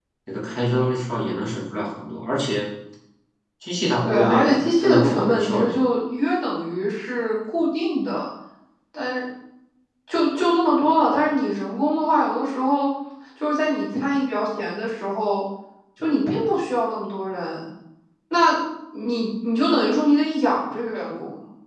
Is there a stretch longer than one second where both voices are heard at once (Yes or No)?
Yes